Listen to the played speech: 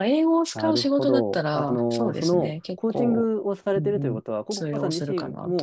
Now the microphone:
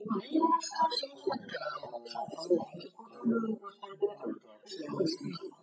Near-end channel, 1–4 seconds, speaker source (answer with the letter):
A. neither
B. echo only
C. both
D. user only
B